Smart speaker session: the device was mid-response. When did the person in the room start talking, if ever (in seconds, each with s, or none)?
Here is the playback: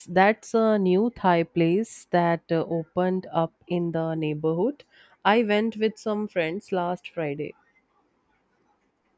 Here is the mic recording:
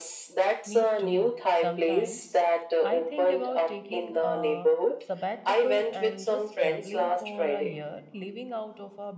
0.6 s